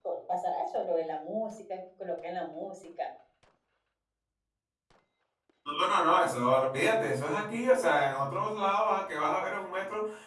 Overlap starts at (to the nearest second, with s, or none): none